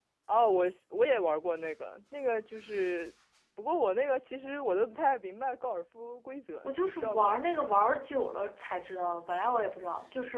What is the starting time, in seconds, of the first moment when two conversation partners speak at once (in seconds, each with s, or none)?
6.6 s